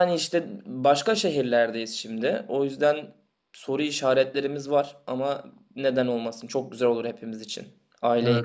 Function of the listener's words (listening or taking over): taking over